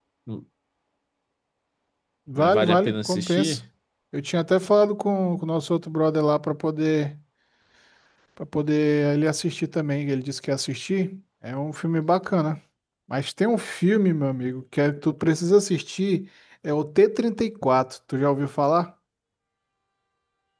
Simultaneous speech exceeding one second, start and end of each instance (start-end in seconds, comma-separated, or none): 2.4-3.6